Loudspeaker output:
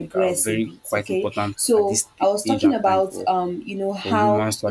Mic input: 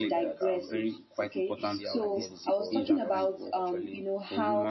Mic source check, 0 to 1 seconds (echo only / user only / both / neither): both